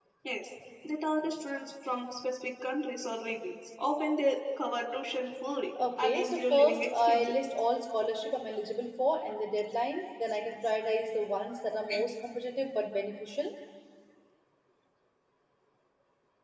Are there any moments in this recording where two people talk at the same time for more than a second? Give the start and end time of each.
6.0-7.3

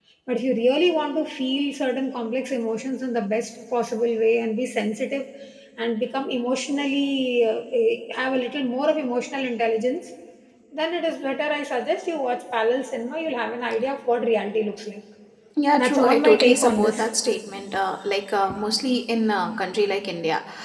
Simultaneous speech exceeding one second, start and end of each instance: 15.8-17.1

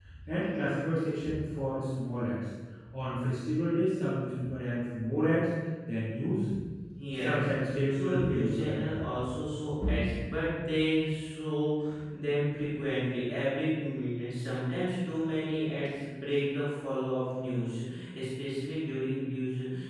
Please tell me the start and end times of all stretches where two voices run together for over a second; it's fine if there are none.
7.2-9.1

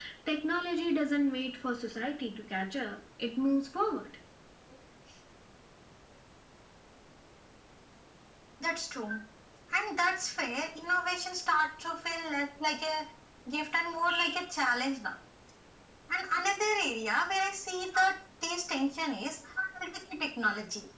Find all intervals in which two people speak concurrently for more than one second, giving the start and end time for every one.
none

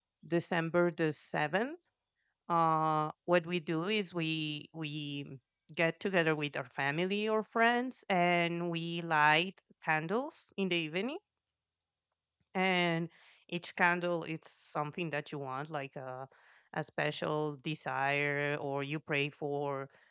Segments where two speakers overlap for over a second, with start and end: none

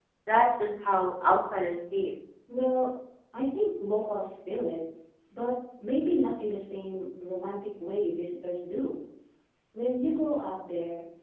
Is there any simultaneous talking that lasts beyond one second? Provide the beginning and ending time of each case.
none

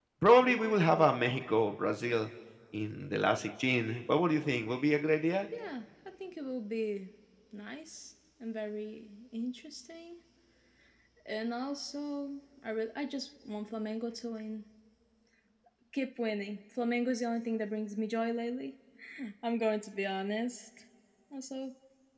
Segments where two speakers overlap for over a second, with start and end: none

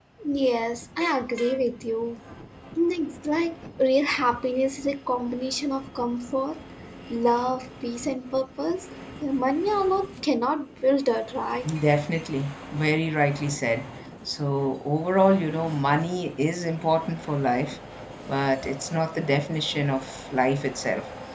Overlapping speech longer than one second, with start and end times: none

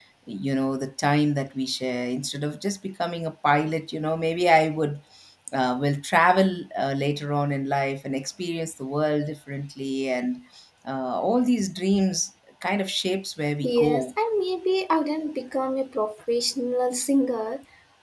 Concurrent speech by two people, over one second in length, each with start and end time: none

